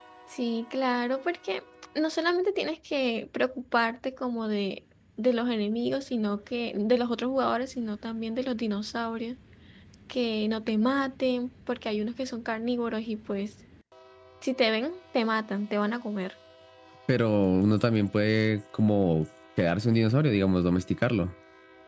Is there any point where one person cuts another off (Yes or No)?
No